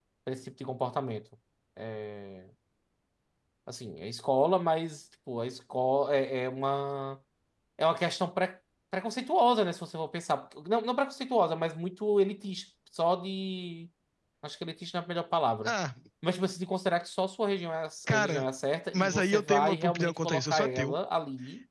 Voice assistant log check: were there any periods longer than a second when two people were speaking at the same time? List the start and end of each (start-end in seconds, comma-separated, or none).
18.9-21.0